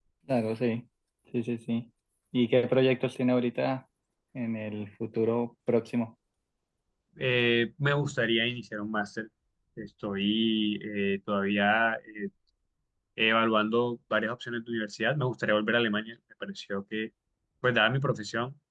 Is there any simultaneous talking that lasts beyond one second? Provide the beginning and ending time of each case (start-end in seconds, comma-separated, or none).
none